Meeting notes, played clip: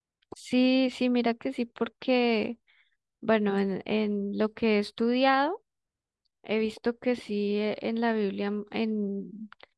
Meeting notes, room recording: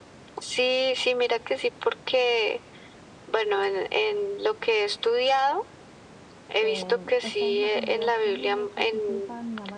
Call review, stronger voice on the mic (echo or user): echo